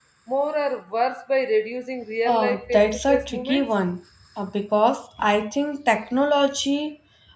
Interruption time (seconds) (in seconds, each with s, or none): 2.2 s